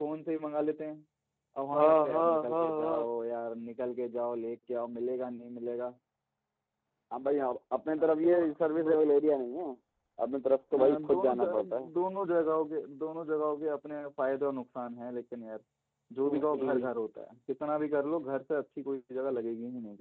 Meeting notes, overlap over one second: present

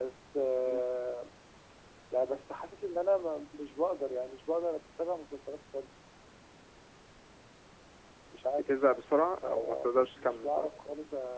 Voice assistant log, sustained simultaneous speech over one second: present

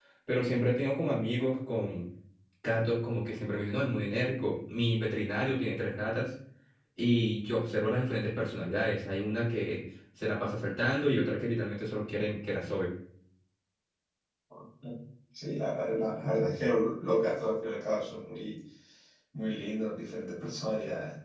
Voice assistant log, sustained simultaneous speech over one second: none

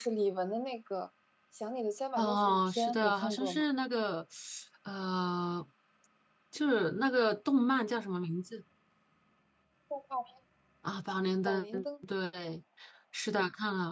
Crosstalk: present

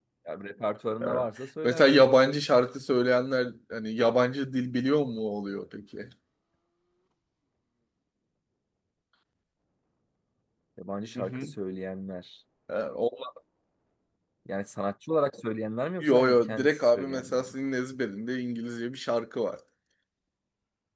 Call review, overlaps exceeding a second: present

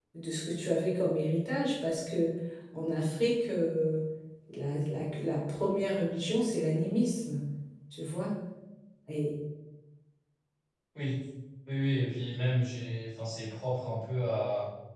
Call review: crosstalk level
none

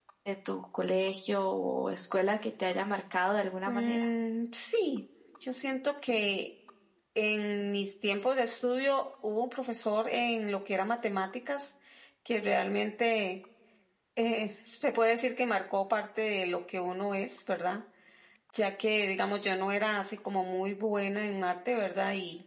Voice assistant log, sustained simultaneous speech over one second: none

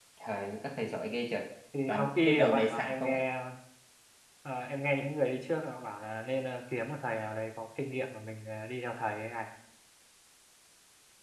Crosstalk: present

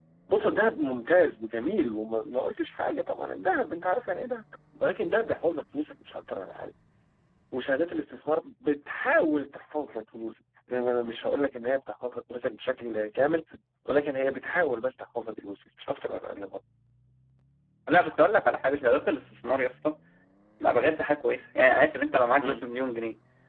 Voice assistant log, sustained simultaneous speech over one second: none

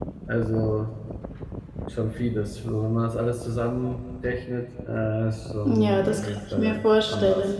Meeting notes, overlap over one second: present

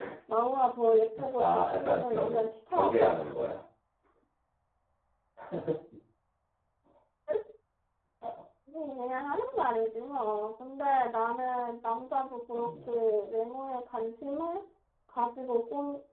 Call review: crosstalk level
present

